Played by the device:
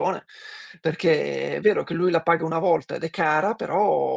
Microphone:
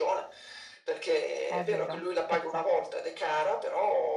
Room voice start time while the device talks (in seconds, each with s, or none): 1.4 s